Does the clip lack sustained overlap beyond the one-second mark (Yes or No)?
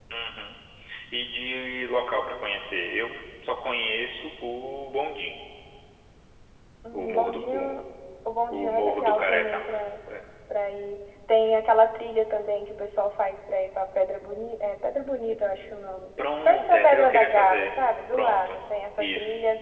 No